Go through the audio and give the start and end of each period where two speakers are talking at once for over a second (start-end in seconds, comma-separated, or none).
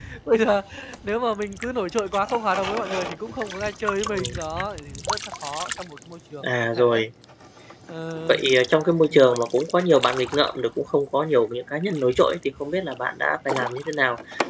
none